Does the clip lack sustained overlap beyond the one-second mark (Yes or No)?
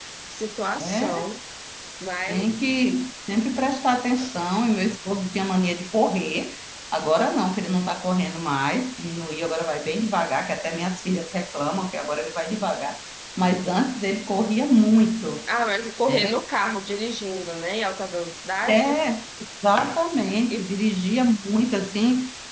Yes